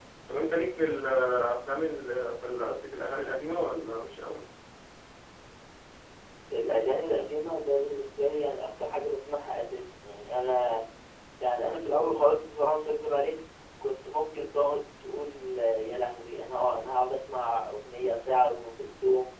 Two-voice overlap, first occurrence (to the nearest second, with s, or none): none